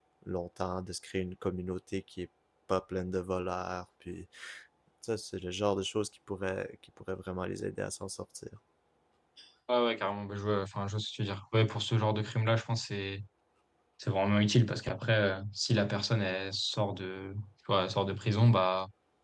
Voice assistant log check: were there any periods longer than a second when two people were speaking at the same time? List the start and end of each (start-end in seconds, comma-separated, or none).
none